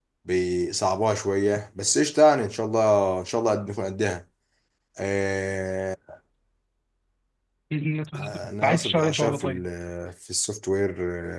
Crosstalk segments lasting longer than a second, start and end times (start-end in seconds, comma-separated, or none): 8.2-9.7